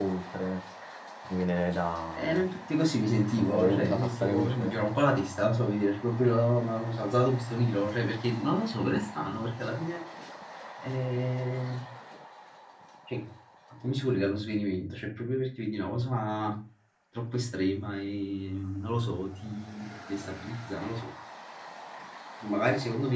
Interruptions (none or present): present